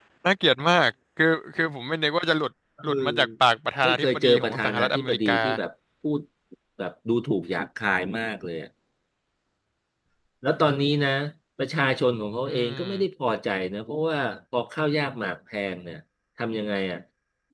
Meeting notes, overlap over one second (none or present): present